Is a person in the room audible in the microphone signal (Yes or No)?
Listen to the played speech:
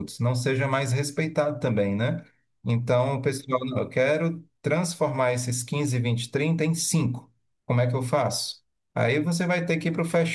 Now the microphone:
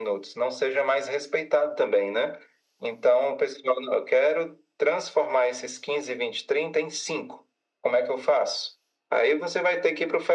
No